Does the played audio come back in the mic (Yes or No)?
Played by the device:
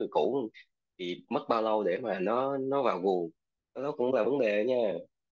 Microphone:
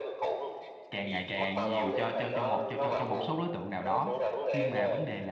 Yes